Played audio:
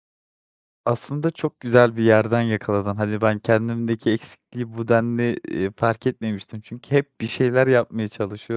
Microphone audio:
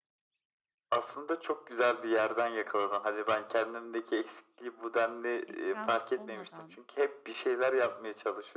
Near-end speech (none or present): present